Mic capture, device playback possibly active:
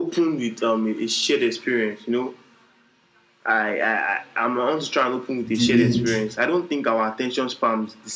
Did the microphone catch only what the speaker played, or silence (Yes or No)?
No